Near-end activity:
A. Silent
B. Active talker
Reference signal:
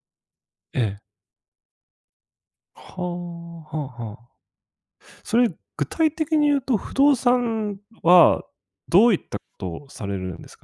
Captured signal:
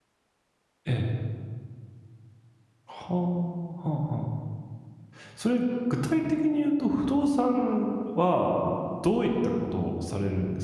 A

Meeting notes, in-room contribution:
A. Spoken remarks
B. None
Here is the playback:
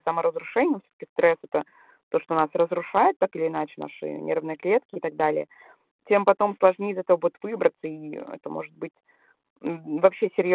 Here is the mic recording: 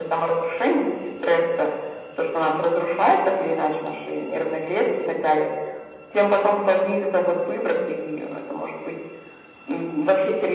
B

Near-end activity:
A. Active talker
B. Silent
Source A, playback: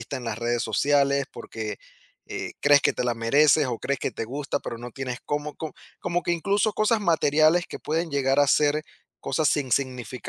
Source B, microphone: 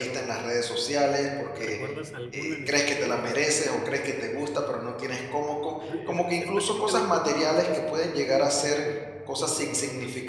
A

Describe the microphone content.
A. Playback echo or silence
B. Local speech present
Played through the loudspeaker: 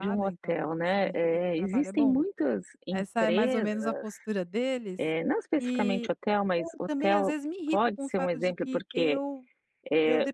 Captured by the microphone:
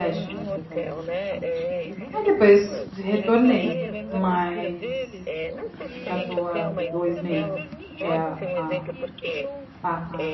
B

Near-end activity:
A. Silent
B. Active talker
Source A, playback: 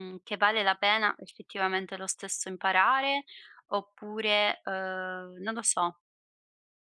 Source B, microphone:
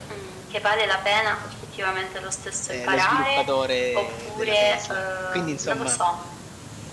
B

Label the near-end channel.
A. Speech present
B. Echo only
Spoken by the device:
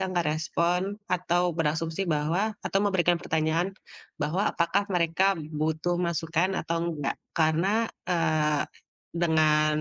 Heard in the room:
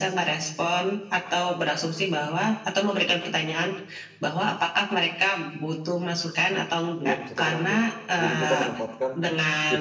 A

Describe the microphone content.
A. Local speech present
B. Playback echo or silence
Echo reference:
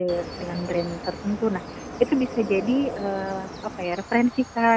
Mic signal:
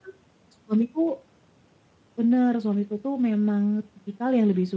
A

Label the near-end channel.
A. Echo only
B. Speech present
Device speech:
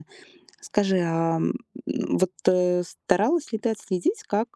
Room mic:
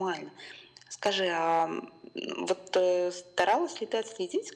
A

